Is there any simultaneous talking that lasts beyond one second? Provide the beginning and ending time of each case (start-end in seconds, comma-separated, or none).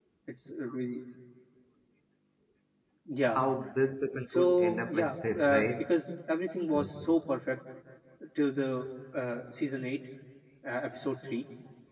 4.1-5.9